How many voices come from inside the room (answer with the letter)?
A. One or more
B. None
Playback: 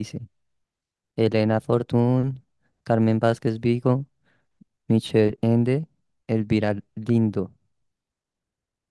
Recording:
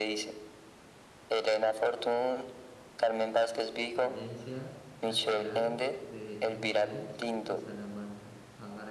A